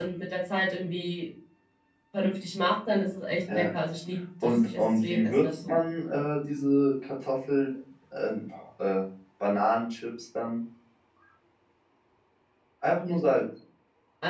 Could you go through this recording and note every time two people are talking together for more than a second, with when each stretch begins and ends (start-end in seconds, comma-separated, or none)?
4.4-5.8